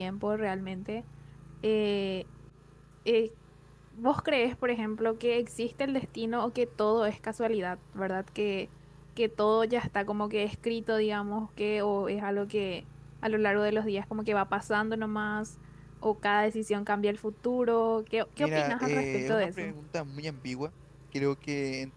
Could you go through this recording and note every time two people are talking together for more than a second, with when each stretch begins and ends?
18.4-19.7

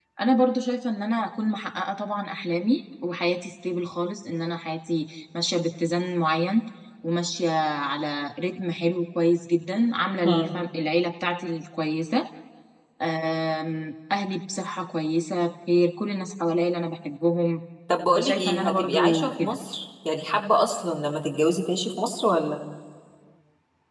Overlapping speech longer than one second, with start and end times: 18.2-19.6

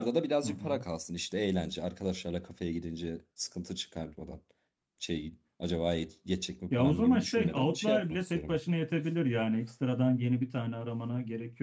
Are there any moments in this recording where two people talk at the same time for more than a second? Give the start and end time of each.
6.8-8.6

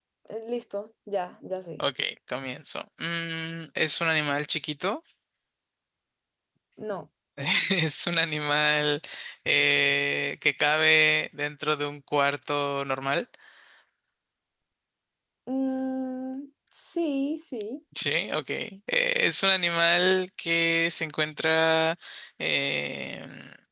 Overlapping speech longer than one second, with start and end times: none

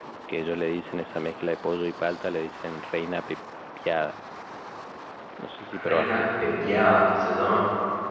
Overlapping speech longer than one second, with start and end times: none

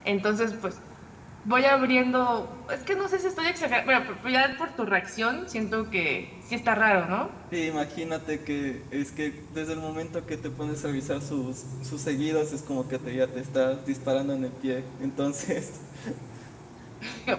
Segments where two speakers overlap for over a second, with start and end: none

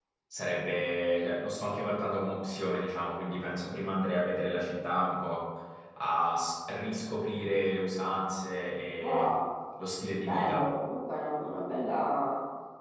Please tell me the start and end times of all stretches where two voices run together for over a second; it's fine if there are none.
none

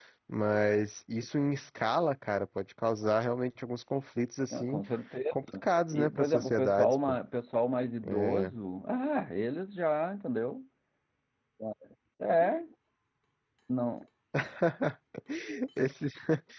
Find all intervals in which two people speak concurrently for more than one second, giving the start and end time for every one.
5.9-7.2

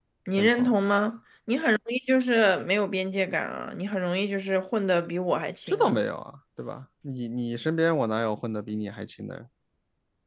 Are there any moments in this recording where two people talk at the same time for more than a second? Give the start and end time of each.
none

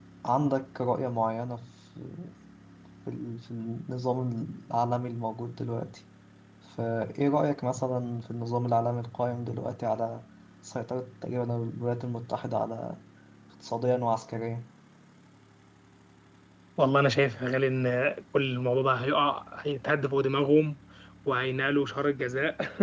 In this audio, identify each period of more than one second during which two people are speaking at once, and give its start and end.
none

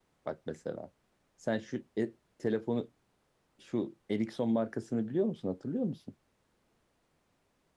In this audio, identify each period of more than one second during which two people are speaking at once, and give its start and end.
none

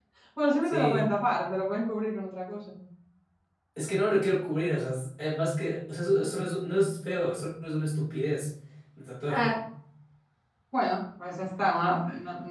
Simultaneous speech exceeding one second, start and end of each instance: none

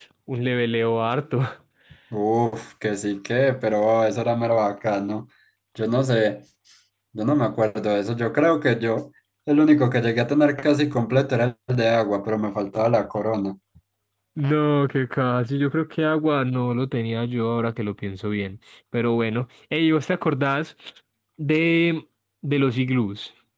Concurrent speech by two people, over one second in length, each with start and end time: none

